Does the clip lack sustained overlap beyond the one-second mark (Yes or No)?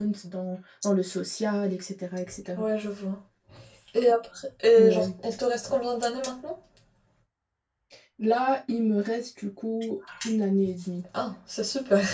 Yes